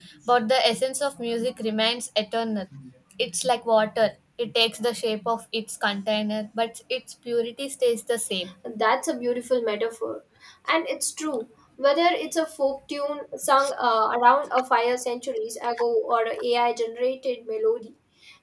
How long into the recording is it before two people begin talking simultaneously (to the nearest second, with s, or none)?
none